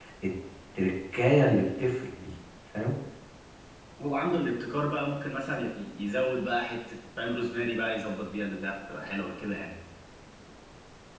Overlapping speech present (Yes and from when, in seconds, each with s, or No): No